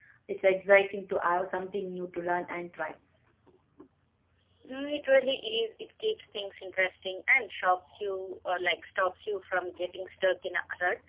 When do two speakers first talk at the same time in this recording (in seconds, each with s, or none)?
none